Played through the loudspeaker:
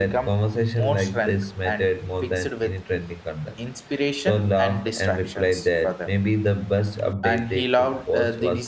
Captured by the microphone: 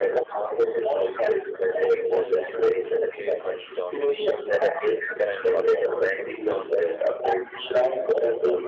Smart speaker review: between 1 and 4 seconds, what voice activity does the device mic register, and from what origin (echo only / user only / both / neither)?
both